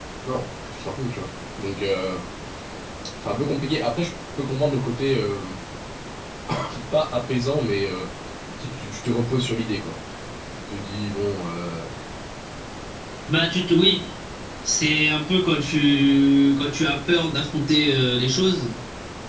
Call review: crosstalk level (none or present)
none